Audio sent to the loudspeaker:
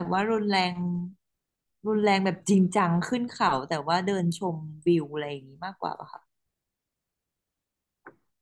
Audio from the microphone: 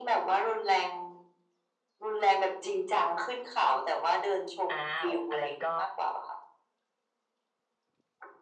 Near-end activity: present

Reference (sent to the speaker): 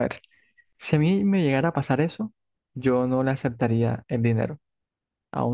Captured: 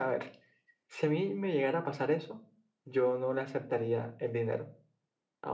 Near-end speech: none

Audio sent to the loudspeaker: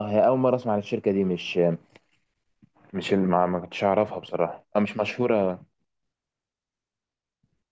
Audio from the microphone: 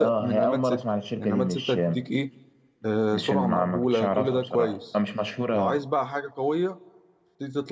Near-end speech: present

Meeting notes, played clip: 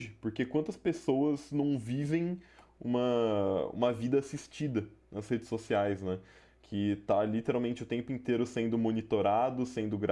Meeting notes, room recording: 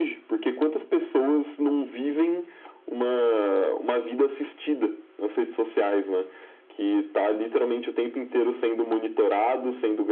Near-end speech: none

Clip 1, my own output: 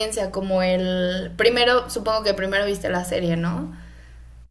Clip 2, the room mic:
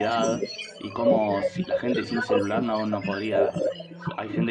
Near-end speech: present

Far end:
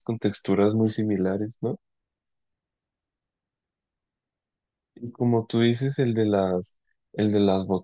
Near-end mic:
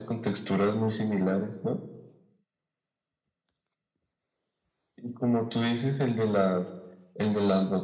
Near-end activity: none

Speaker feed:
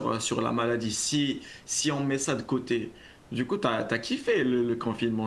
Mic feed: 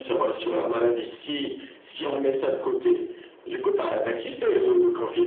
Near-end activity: none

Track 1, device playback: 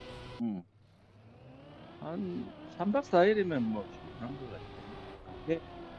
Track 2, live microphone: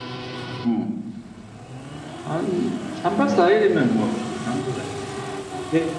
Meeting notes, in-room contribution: present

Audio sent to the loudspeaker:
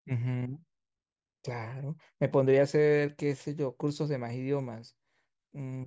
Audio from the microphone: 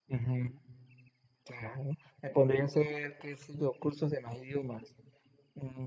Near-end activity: none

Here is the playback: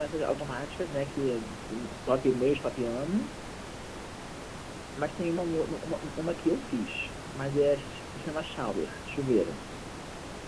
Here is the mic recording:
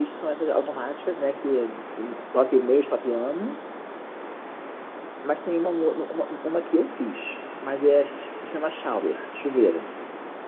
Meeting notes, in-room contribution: none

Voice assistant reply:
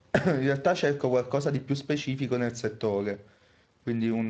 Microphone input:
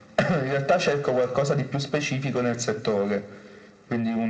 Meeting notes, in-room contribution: none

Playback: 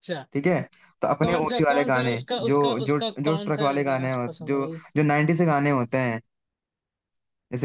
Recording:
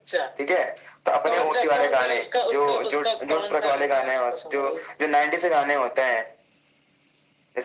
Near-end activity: none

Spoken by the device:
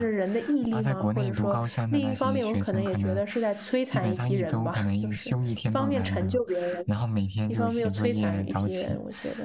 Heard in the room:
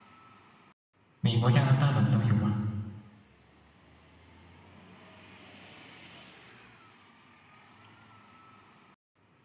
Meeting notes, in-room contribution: present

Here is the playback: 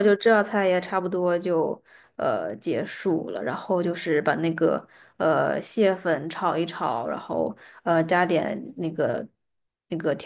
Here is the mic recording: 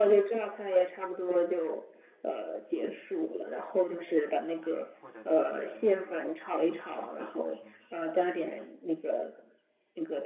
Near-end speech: present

